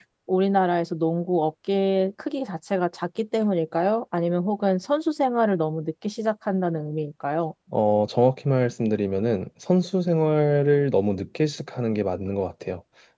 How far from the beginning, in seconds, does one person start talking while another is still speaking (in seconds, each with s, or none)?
none